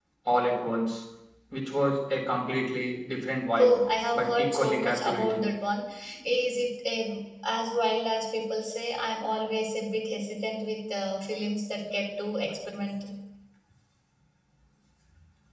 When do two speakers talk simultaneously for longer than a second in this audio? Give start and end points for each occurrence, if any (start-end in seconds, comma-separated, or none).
4.1-5.5